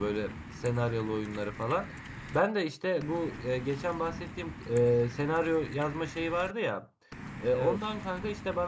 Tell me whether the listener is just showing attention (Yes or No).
Yes